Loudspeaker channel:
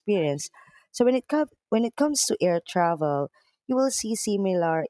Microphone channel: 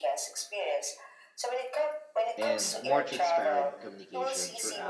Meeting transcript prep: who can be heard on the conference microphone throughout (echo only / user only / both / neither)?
both